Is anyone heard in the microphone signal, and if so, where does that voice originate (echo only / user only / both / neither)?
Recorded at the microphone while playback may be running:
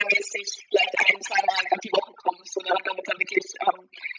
echo only